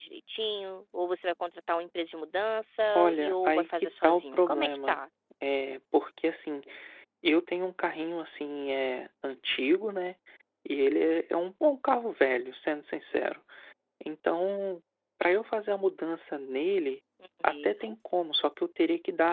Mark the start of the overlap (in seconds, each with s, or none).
2.9 s